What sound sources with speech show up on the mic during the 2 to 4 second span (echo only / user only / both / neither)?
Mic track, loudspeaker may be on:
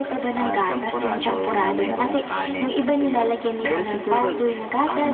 echo only